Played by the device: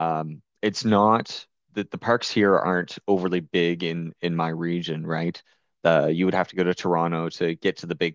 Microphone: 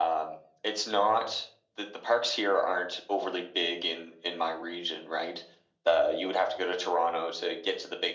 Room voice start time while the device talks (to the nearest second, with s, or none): none